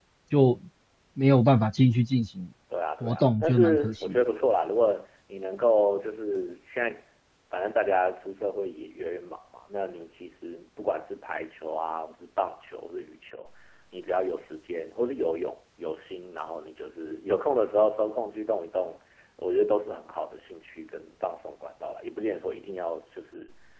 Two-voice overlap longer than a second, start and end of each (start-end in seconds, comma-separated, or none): 3.0-4.2